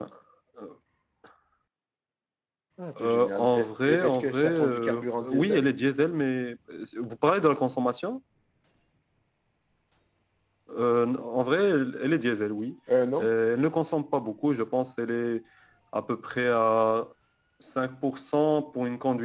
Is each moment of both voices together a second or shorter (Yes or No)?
No